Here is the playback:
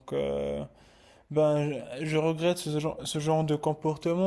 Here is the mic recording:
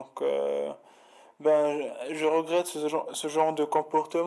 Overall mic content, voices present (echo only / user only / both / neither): echo only